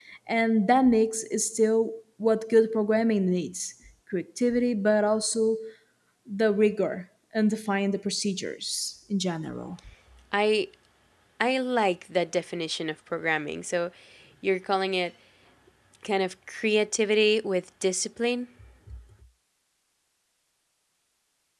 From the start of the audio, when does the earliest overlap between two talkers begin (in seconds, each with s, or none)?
none